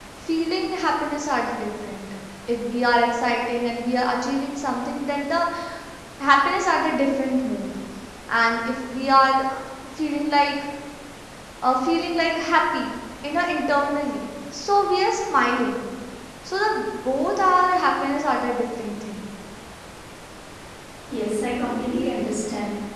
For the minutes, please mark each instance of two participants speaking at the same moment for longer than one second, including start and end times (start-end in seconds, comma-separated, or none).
none